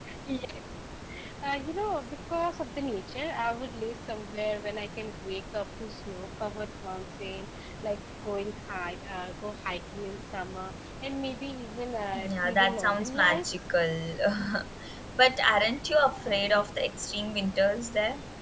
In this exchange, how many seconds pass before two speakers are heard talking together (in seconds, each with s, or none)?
12.2 s